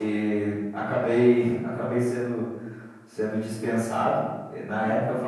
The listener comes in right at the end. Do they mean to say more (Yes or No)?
No